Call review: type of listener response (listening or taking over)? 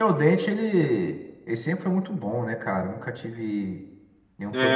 taking over